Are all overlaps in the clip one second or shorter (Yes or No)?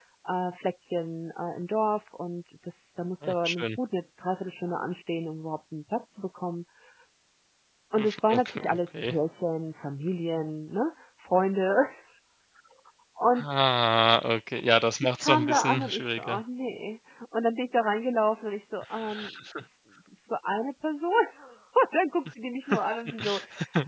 No